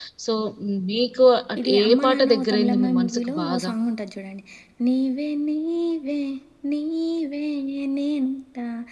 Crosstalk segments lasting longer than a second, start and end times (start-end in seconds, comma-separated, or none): 1.6-3.7